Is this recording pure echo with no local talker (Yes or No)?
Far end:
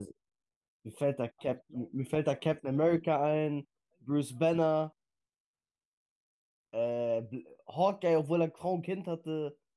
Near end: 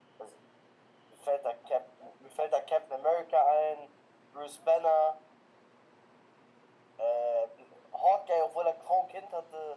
Yes